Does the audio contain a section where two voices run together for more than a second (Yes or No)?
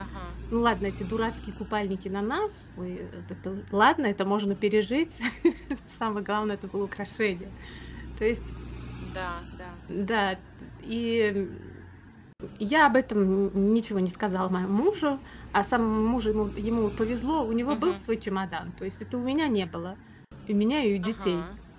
No